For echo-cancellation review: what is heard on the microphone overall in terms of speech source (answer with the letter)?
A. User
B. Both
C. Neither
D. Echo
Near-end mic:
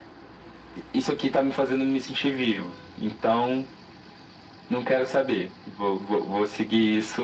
D